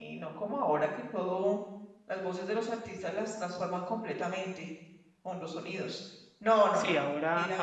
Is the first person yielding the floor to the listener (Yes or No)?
Yes